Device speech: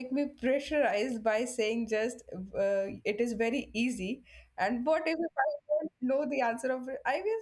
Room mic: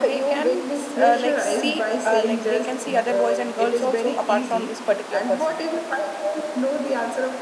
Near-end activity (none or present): present